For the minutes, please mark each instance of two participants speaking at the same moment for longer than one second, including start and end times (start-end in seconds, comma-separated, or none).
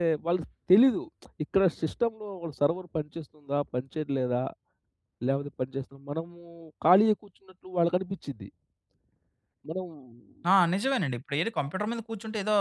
none